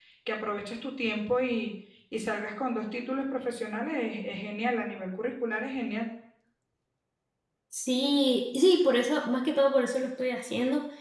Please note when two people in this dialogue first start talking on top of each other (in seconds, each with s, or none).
none